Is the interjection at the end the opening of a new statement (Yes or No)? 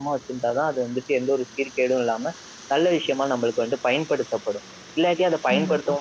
No